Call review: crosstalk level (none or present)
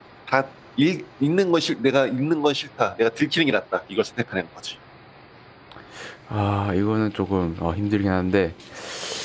none